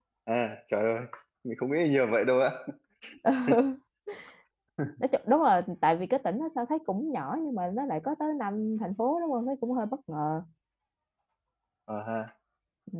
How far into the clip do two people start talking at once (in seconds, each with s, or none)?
none